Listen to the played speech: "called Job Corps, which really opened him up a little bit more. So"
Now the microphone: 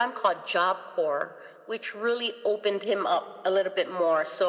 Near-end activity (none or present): none